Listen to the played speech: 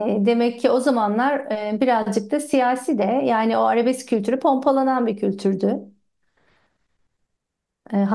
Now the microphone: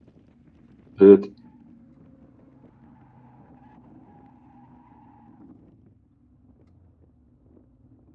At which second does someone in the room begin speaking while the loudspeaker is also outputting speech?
1.0 s

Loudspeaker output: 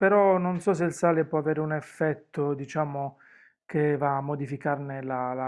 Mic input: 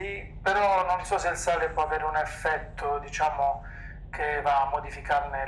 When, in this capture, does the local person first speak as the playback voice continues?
none

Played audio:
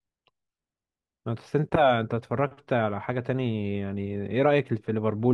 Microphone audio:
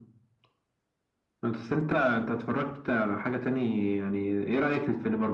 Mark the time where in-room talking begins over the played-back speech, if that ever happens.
none

